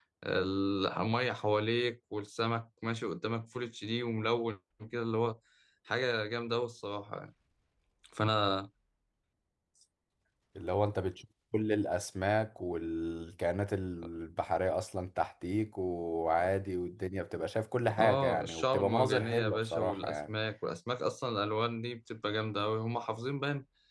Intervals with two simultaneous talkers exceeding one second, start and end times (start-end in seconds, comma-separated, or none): 18.0-20.3